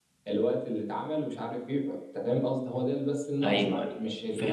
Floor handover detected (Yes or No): Yes